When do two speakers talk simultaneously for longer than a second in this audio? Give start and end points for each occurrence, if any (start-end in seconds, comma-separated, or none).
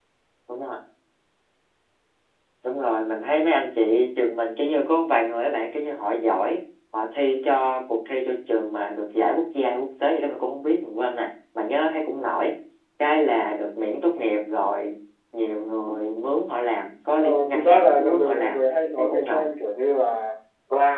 17.2-18.6